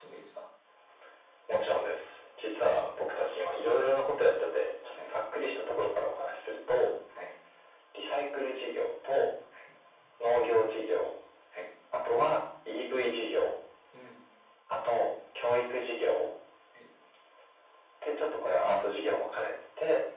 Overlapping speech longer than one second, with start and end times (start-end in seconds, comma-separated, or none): none